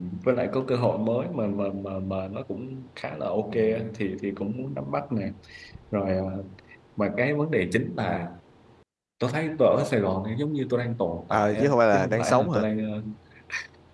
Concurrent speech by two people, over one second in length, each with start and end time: 11.3-12.6

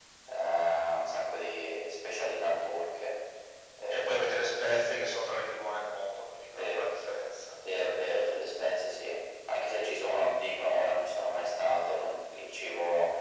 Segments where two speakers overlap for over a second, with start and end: none

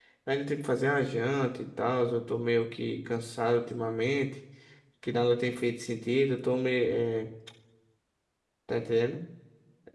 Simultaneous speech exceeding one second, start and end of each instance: none

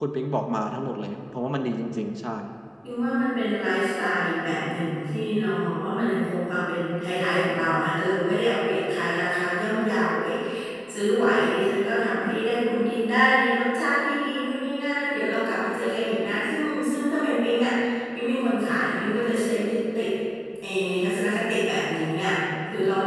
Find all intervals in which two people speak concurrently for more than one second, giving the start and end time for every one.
none

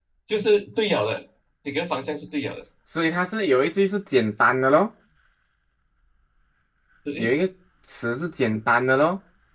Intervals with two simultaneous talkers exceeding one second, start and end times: none

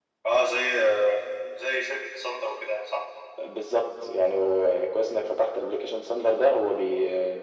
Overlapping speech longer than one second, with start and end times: none

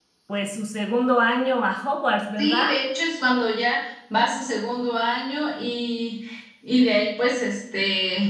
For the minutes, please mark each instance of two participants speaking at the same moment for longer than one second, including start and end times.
none

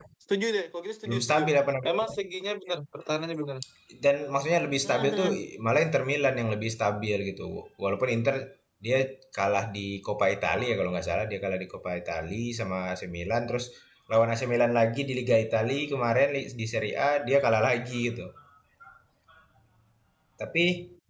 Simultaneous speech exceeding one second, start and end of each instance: none

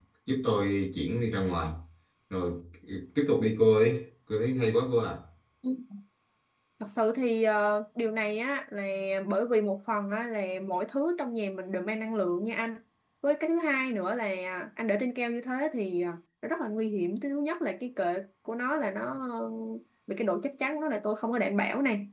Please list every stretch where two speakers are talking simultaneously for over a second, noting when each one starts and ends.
none

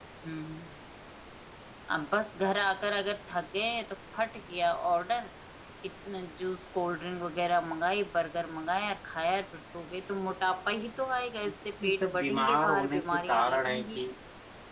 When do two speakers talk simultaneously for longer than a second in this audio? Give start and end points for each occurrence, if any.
11.8-14.0

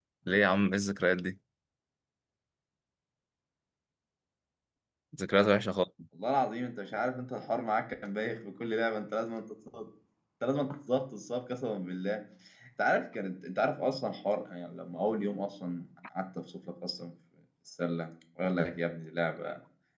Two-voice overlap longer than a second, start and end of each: none

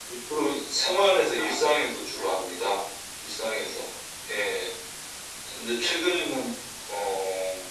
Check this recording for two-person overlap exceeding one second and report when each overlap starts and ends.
1.4-2.8

